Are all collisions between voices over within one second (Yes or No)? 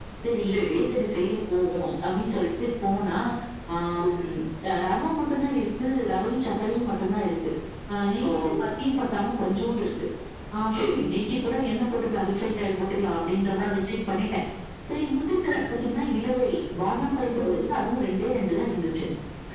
Yes